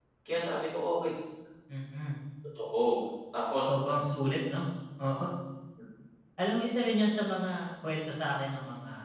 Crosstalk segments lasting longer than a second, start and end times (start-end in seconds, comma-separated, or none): none